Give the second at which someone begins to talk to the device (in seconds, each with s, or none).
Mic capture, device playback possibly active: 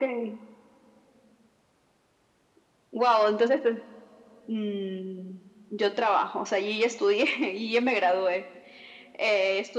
none